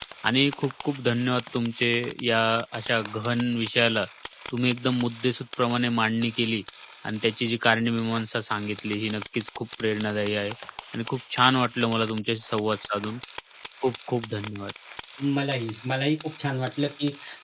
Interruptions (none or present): none